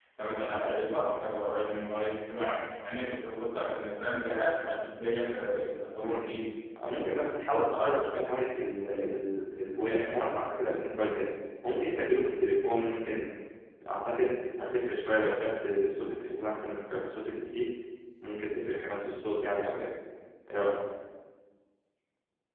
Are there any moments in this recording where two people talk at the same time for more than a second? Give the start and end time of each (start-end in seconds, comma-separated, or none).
none